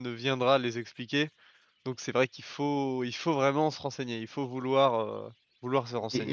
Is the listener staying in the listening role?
No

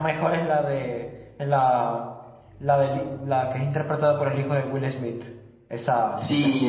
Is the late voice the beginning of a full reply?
Yes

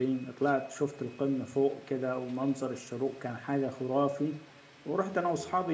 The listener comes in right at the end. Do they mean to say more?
No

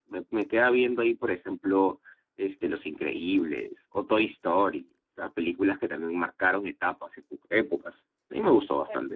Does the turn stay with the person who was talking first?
No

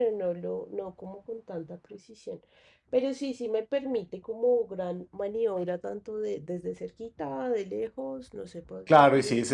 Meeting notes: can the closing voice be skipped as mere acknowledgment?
No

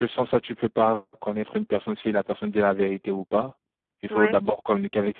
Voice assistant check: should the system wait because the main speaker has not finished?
Yes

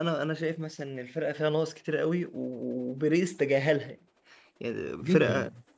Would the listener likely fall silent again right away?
Yes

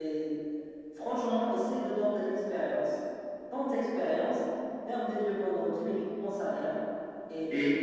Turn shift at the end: No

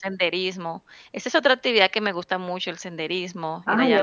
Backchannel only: No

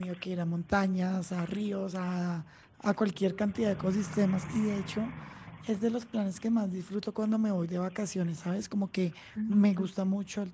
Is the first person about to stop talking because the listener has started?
No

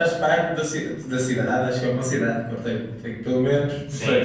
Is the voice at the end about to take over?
Yes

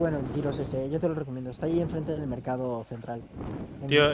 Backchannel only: No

